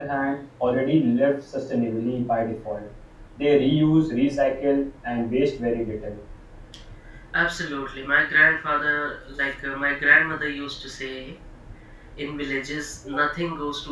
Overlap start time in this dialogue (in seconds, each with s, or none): none